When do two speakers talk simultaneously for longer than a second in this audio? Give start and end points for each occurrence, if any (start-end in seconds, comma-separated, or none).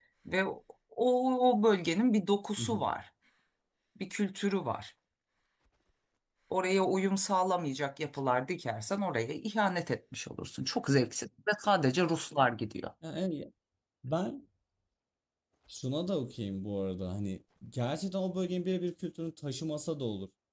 none